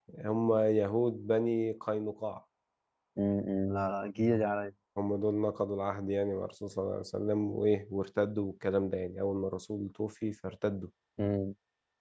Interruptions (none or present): none